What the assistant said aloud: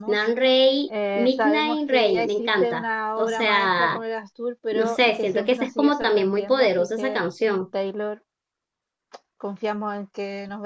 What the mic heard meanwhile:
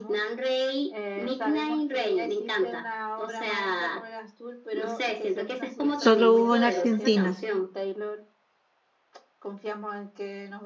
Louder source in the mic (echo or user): user